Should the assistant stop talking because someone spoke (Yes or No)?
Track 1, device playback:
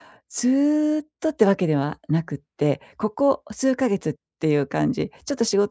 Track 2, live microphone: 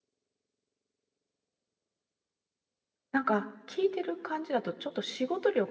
Yes